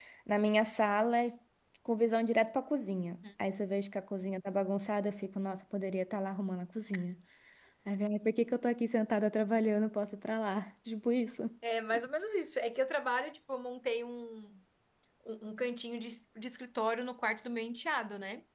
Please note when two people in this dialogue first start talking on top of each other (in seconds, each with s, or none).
none